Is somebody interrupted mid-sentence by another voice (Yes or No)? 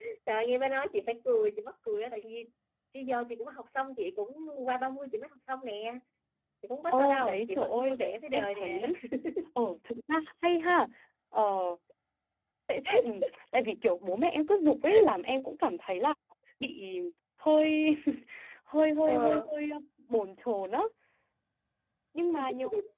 Yes